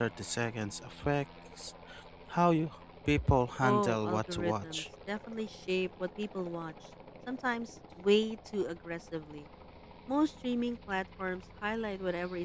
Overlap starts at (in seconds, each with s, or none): 3.6 s